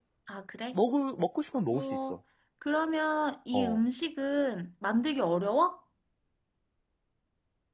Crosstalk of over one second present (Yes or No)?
No